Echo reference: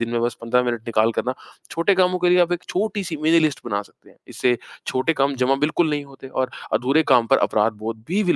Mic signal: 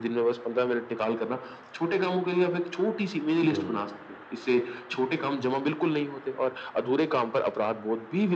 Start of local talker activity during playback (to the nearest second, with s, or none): 3 s